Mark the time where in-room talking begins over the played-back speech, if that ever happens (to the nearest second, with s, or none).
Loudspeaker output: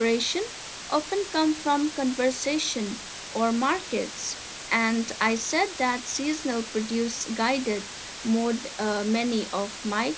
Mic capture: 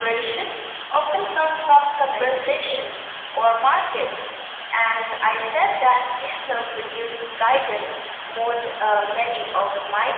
2 s